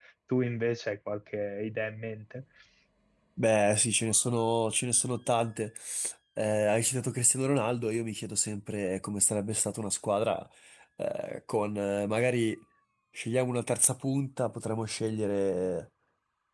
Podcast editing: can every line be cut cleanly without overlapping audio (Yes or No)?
Yes